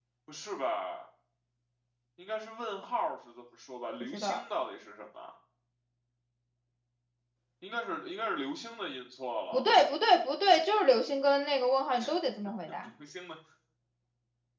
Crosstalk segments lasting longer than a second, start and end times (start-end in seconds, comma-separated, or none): none